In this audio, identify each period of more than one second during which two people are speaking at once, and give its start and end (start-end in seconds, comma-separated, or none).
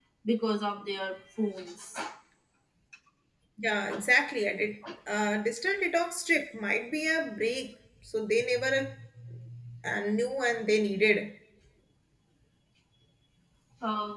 none